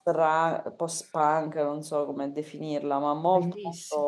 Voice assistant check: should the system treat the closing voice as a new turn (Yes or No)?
No